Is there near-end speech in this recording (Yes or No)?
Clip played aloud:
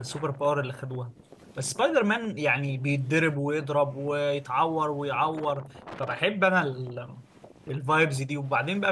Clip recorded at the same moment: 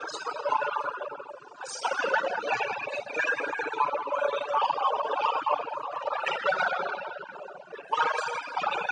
No